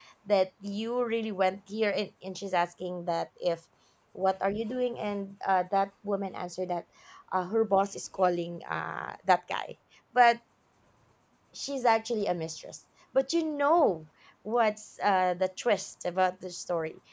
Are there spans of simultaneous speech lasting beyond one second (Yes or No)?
No